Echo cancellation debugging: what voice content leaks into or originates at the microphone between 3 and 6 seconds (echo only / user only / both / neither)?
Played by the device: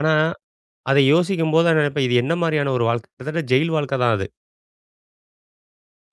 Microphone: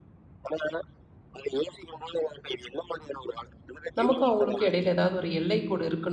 both